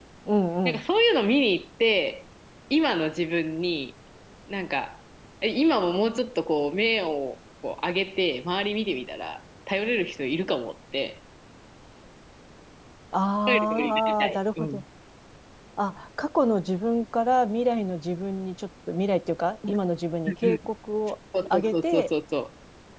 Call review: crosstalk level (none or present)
present